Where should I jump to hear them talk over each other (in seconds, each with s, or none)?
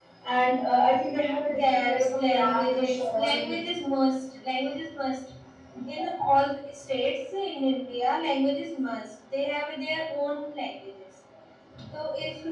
1.6 s